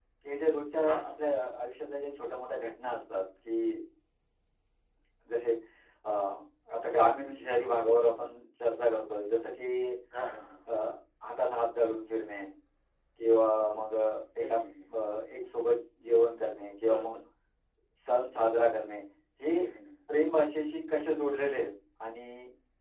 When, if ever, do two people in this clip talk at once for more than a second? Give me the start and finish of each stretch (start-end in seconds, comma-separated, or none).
none